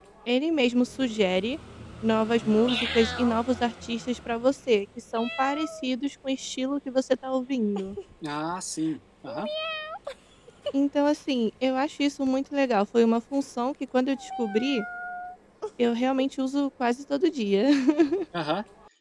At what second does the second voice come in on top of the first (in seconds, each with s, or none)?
none